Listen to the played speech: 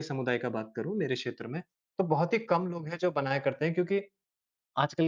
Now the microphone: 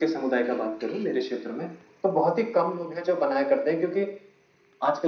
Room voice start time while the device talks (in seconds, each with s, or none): none